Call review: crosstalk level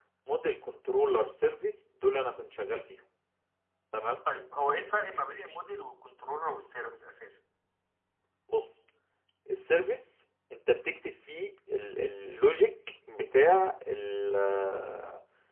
none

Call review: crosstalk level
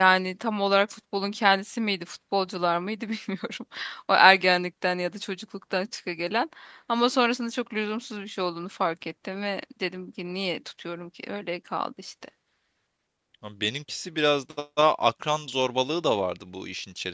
none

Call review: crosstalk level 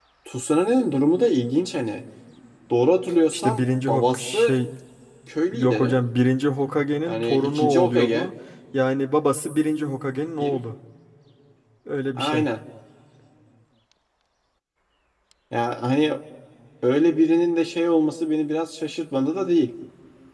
present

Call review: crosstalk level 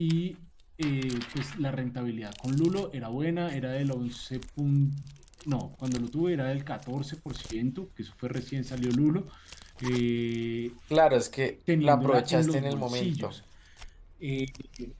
present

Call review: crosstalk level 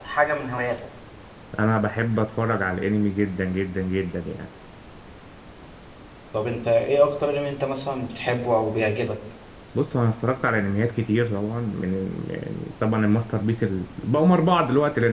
none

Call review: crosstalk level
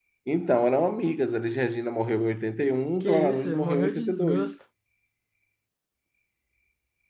present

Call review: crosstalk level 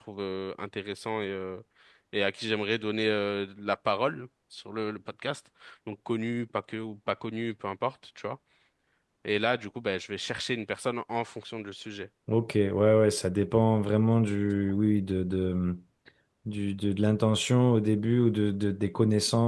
none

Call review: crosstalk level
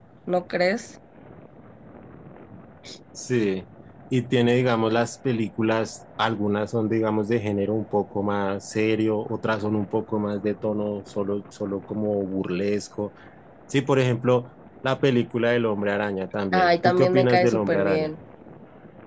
present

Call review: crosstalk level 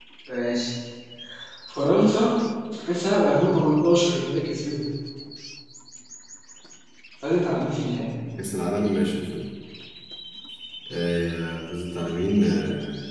none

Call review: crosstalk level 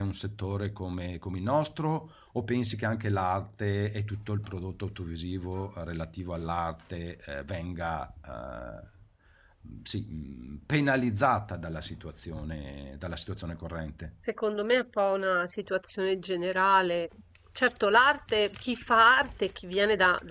none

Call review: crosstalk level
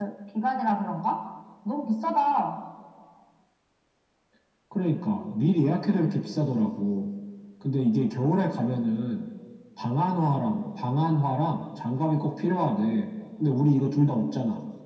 none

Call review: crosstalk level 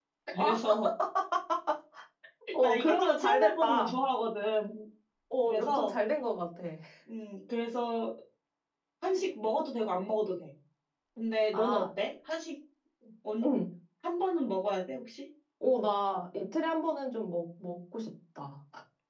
present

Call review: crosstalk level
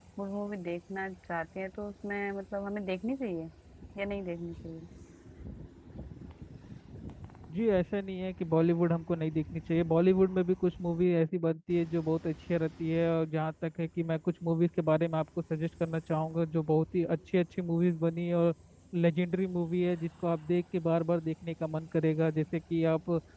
none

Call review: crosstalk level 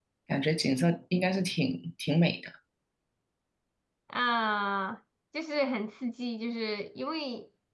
none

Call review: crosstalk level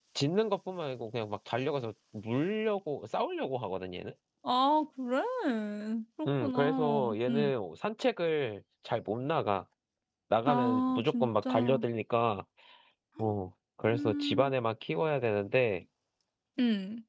present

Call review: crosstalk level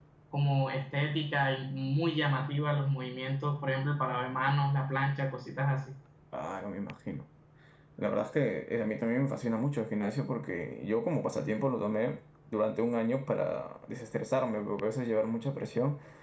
none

